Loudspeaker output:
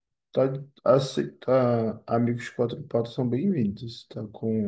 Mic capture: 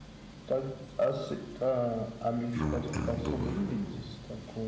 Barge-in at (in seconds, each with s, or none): 2.6 s